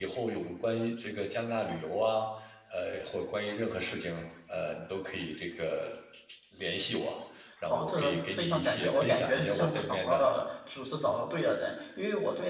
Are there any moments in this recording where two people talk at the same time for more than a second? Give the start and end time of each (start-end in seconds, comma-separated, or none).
7.7-10.3